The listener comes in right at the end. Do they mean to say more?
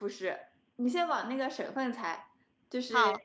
No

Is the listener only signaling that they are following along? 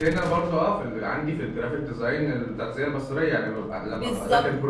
Yes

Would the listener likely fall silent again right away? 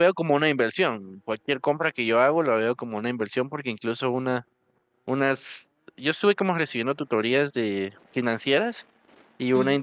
Yes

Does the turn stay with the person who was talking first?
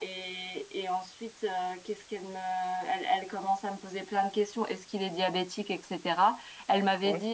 Yes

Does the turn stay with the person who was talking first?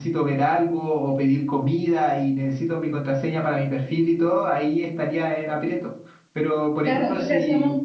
No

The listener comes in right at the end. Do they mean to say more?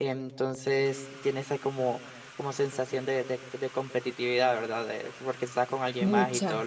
No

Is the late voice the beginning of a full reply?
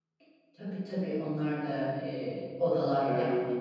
Yes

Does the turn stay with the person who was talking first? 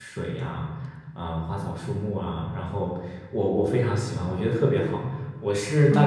Yes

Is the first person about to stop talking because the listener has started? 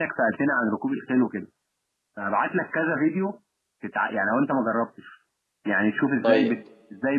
No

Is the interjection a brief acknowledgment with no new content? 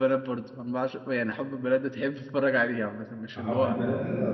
No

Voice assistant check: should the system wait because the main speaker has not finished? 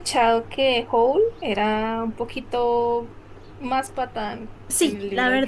No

